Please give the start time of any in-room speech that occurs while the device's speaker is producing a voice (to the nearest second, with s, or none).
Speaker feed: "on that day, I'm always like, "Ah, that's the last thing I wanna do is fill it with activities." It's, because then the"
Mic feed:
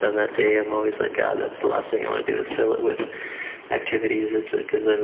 none